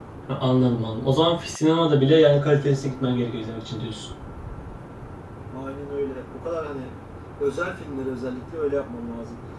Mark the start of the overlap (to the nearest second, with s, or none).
none